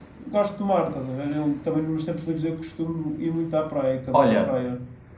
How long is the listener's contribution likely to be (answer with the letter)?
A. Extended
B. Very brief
A